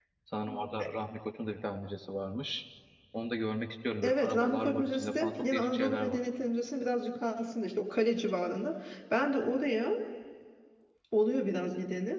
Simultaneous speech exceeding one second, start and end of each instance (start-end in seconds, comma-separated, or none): 4.0-6.2